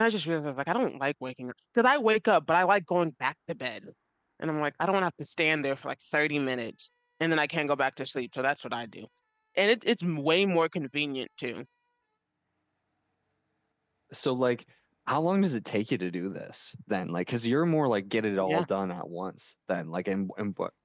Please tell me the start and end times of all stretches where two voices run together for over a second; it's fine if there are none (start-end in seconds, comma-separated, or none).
none